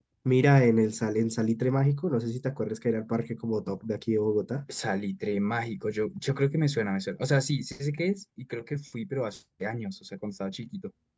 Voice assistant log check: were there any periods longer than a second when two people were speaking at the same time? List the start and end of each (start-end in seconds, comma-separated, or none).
none